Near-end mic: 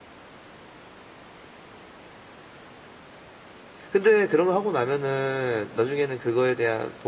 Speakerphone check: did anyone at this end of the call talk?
Yes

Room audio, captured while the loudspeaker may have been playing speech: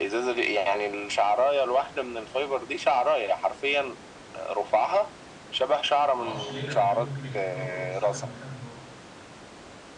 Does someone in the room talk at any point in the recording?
Yes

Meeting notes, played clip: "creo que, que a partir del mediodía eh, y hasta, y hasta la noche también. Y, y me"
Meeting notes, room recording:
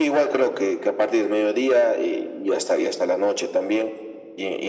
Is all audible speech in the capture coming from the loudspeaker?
Yes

